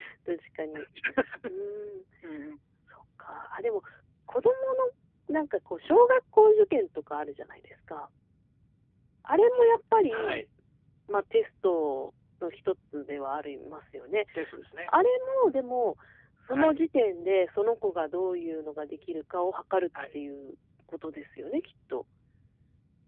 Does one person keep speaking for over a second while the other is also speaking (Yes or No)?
No